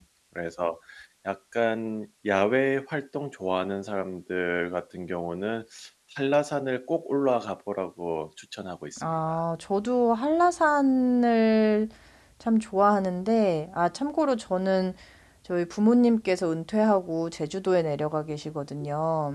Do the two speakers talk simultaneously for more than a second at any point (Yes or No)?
No